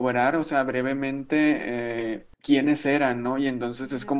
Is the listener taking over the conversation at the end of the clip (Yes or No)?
No